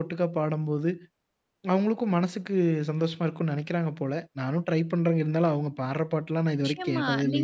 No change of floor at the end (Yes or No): No